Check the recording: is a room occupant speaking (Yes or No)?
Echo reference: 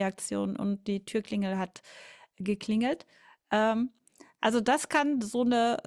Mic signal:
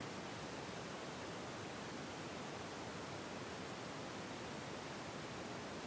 No